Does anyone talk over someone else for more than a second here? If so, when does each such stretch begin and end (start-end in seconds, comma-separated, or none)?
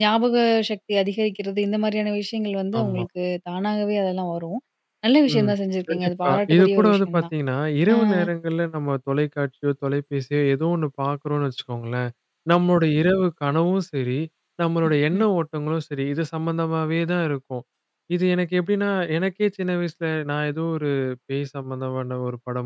5.9-7.2